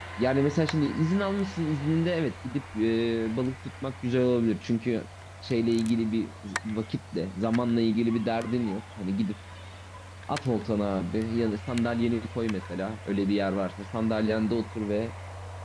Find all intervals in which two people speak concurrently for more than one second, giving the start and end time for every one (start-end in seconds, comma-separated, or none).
none